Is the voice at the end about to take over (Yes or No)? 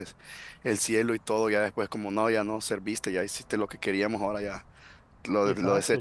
Yes